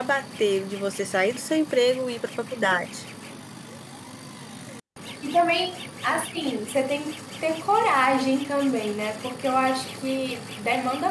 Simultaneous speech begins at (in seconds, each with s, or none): none